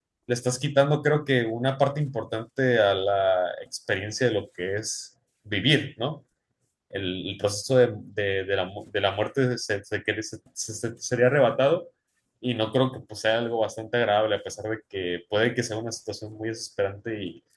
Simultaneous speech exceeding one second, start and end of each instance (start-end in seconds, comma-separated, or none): none